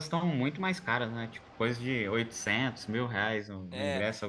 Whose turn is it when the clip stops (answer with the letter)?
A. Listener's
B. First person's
A